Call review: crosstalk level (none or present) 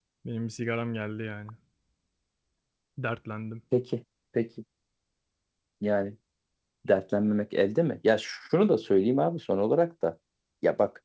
none